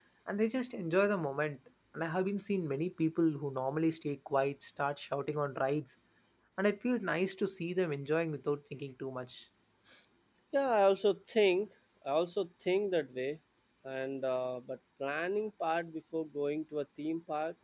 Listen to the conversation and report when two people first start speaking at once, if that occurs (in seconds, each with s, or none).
none